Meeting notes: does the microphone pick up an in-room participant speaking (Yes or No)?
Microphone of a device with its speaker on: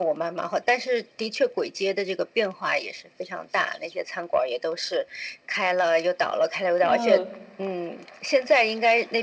Yes